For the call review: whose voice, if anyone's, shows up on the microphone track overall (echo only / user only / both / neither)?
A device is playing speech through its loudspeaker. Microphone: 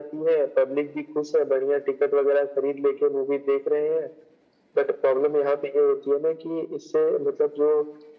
echo only